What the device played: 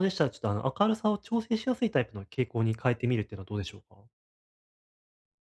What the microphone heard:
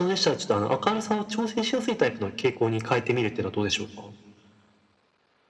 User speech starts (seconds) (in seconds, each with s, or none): none